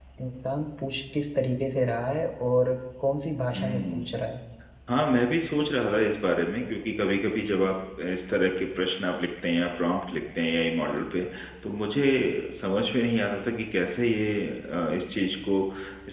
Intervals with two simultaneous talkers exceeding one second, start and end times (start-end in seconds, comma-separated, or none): none